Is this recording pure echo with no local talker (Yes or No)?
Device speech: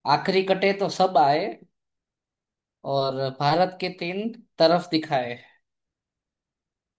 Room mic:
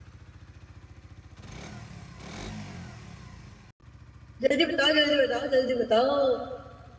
No